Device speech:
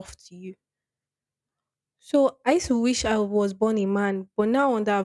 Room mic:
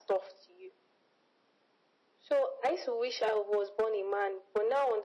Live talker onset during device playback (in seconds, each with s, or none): none